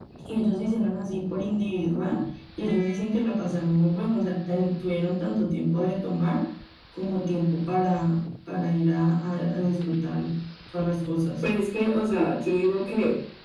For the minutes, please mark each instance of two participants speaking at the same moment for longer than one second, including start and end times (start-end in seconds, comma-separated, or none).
none